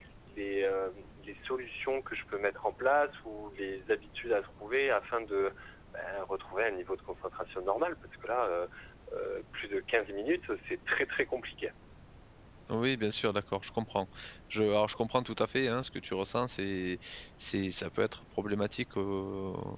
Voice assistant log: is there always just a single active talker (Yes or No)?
Yes